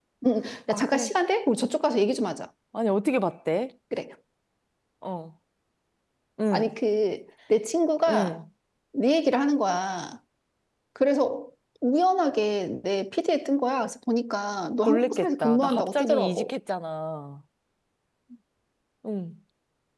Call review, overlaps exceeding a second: present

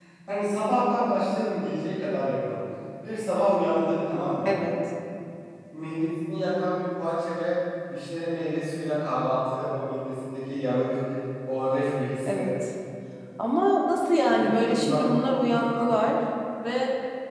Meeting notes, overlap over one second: present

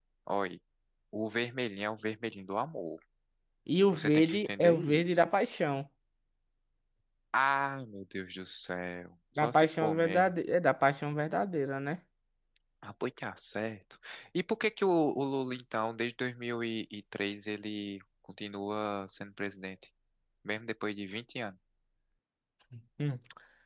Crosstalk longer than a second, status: present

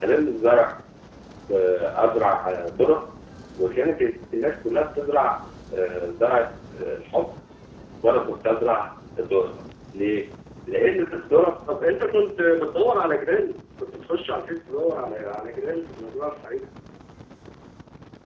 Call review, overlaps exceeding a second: none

